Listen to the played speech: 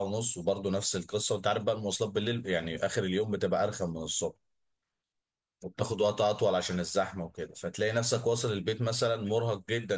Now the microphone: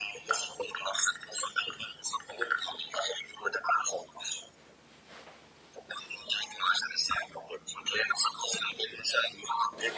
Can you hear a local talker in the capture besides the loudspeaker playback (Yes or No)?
No